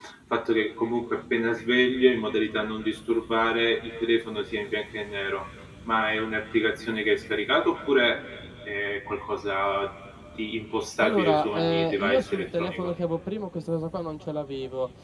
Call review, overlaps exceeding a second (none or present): present